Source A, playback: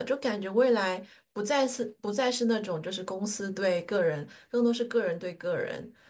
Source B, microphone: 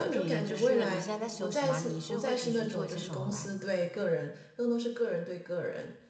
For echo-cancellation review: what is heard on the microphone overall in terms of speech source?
both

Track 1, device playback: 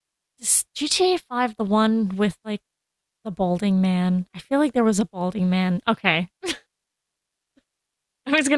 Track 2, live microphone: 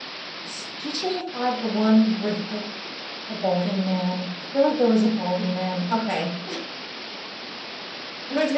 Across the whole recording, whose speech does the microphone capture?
echo only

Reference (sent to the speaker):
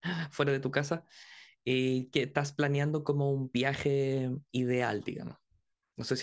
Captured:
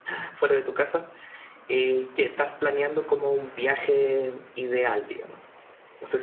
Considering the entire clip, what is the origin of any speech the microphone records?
echo only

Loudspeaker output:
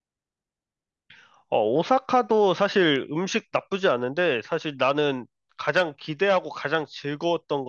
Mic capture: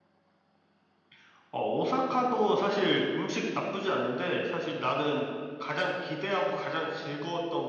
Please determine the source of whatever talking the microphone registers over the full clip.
echo only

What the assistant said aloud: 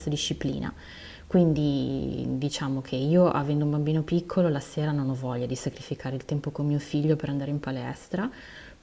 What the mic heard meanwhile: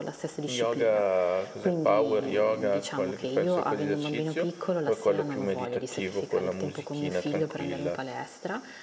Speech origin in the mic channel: both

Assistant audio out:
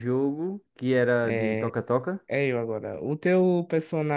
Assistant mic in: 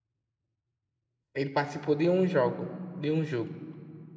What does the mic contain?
user only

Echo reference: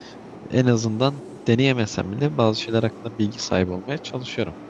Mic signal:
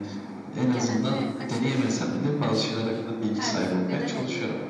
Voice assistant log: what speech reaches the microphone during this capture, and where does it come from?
both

